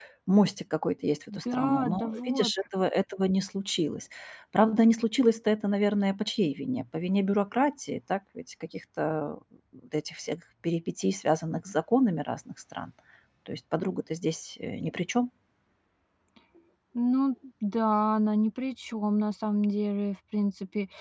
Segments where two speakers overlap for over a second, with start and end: 1.3-2.5

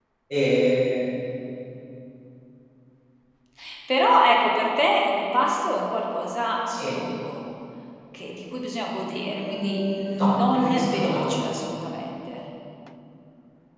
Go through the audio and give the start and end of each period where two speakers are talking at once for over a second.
9.2-11.3

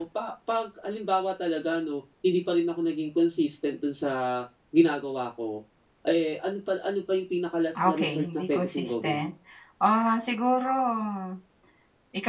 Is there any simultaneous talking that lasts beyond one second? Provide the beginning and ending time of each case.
7.8-9.2

